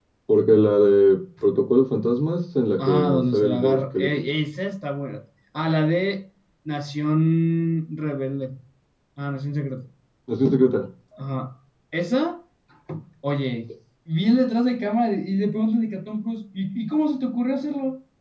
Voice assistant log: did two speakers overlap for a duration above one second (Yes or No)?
Yes